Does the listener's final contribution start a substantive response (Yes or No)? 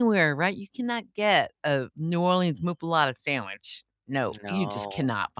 No